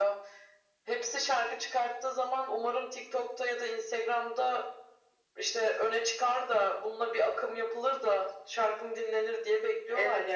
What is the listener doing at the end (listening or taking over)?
taking over